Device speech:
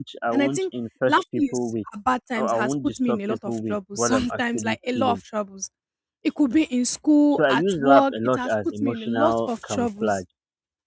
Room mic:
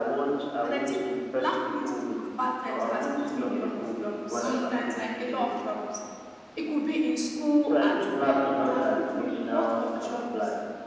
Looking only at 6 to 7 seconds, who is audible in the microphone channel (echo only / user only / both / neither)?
echo only